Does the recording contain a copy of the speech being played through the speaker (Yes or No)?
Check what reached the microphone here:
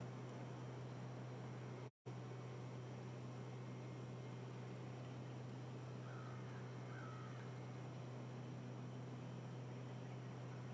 No